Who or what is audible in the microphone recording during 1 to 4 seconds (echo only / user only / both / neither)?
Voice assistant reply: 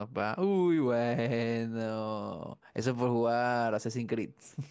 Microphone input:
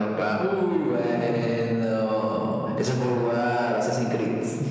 echo only